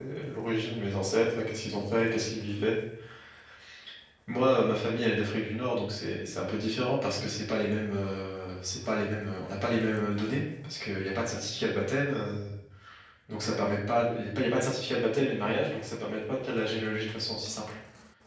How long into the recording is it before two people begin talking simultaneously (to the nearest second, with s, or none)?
none